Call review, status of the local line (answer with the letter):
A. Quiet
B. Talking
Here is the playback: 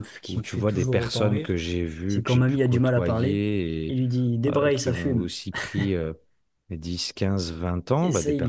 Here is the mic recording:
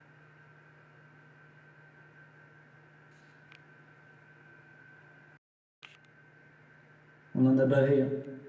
B